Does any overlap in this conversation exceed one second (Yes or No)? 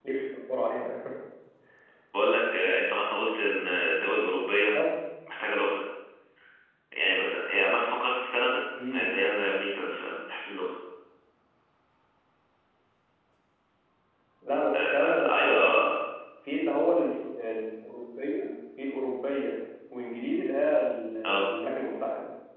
Yes